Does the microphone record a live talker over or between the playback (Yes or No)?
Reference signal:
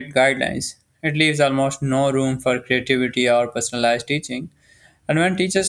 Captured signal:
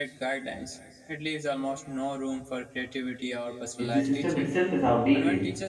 Yes